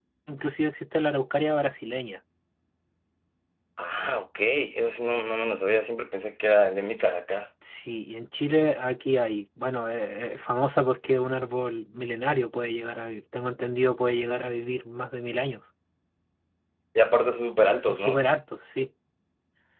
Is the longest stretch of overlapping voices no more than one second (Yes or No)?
Yes